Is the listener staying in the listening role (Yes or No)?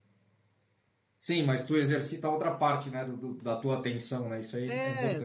No